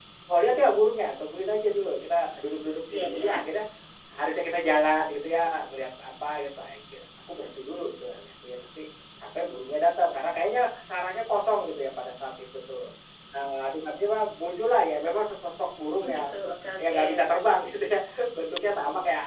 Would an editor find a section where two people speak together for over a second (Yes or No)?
No